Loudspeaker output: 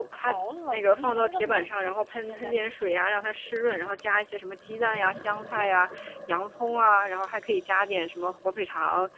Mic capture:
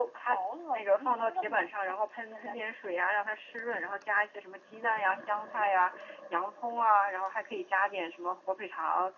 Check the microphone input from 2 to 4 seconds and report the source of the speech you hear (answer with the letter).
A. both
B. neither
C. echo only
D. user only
C